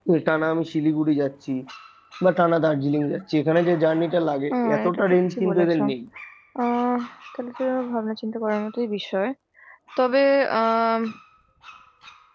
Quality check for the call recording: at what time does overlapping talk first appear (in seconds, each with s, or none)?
4.5 s